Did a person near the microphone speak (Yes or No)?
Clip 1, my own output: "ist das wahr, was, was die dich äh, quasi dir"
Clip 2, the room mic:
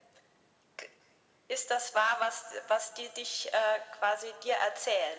No